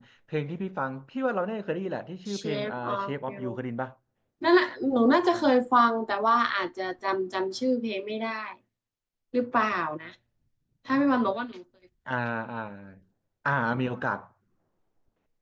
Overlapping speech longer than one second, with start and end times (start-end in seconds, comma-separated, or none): 2.3-3.6